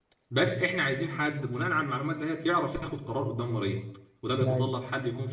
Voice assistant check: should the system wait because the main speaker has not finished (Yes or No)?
Yes